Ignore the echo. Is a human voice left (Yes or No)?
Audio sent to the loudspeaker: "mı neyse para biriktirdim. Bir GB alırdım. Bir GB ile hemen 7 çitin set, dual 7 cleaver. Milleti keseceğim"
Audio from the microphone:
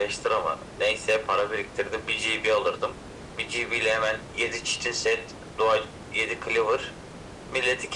No